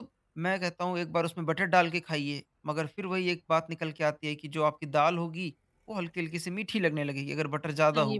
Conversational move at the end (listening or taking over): taking over